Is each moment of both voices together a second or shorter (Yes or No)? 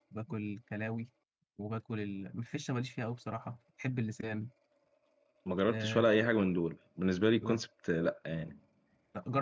Yes